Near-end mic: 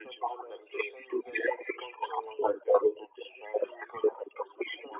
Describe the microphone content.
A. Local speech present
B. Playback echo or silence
B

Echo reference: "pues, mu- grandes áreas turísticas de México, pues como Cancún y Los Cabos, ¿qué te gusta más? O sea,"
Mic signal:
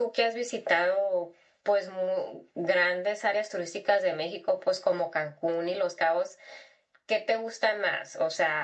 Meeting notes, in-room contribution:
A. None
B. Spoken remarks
A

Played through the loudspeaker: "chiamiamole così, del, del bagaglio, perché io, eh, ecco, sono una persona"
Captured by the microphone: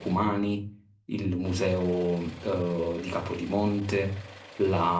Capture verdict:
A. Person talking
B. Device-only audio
A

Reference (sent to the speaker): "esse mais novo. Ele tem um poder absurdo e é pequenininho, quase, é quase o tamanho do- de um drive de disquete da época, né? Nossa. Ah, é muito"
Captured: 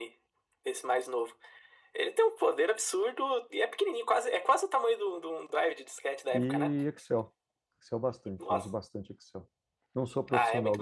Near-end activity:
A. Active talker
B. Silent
A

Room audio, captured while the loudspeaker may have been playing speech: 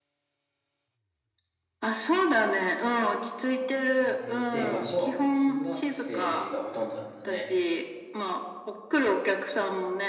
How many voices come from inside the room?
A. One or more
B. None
A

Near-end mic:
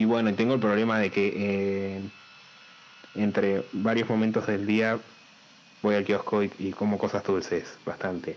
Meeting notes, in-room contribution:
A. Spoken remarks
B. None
B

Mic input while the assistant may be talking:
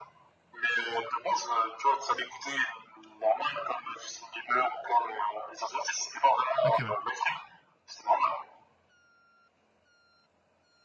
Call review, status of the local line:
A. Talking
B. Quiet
A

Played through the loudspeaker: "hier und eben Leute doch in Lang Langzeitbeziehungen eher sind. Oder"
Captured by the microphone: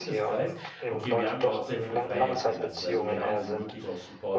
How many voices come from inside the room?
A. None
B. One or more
B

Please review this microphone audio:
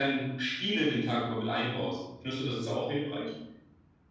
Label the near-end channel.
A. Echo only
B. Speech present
A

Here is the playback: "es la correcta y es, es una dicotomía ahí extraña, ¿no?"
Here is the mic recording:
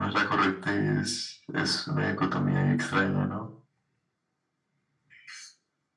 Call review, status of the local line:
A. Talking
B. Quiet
B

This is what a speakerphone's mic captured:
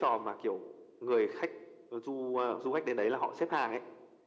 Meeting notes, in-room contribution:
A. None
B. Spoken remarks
A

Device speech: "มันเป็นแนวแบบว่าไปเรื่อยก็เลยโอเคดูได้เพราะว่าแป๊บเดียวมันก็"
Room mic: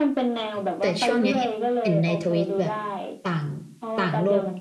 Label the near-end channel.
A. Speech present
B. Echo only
A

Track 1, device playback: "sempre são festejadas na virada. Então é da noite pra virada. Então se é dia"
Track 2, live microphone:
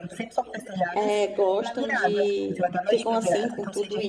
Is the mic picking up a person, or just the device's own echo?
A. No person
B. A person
B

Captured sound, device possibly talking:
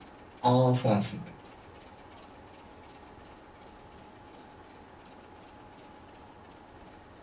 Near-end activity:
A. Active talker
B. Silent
A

